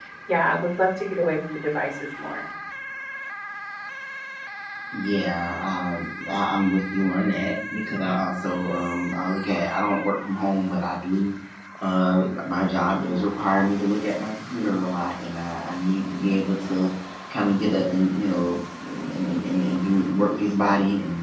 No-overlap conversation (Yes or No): Yes